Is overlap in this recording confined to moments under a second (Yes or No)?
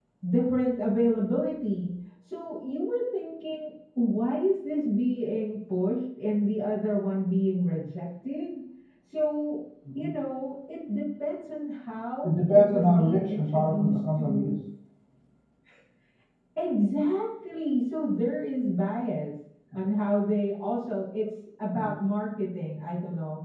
No